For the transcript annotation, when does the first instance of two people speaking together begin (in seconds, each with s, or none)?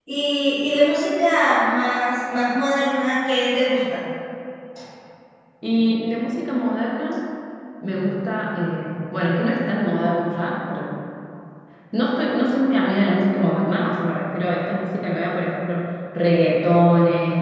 none